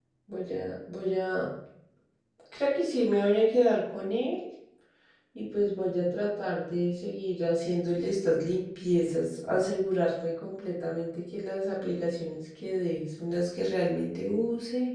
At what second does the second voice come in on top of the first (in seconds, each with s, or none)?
none